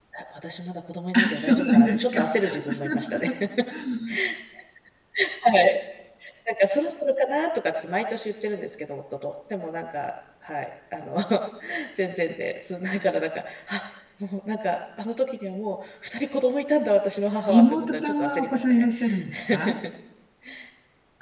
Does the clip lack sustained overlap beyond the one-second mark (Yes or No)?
No